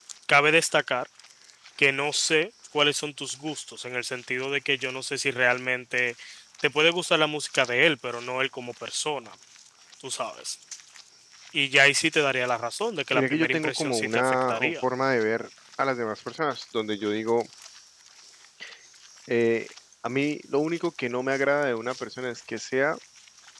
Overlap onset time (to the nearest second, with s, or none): 13 s